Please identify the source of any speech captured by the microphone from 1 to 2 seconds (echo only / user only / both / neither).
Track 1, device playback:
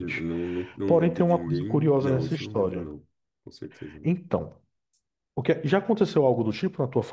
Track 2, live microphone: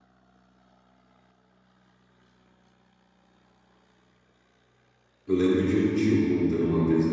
neither